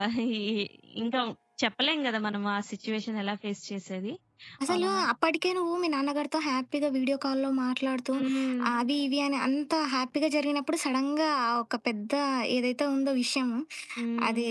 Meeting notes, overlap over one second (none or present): none